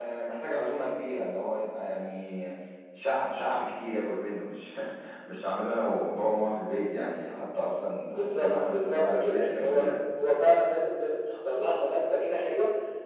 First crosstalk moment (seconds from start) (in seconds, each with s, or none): 8.1 s